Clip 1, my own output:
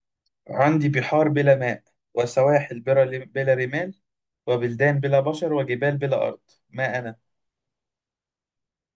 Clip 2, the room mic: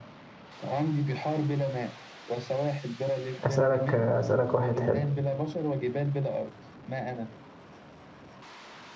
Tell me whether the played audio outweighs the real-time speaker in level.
No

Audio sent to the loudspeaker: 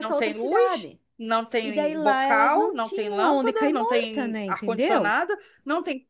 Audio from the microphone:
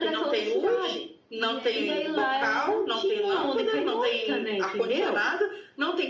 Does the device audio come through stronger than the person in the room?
Yes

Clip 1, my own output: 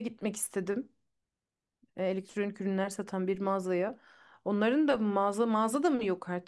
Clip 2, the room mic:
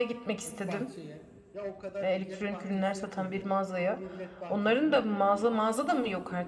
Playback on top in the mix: Yes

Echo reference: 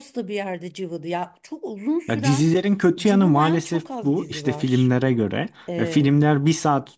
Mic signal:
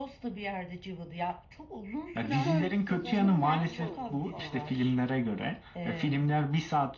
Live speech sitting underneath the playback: Yes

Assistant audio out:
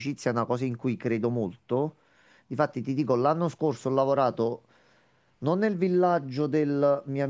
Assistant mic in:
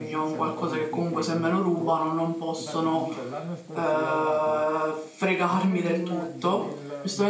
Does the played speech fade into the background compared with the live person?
Yes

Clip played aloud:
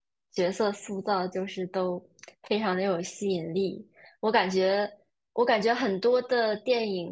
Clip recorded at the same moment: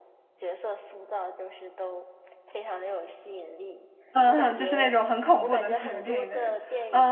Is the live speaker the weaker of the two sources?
No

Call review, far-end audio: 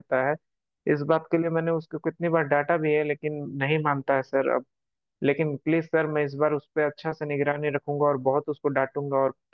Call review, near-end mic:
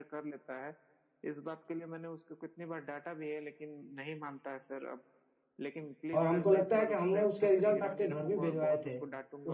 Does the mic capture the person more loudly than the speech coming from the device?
Yes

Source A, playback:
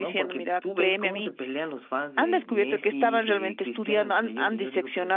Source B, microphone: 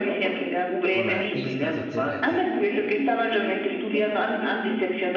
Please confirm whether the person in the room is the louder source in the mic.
No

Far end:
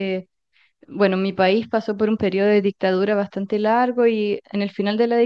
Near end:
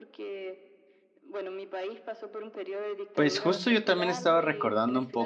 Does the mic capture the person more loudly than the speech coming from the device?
Yes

